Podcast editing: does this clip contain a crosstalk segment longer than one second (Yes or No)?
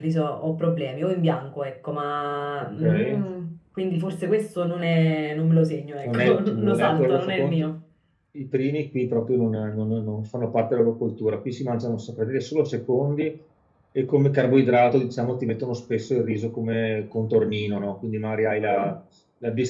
Yes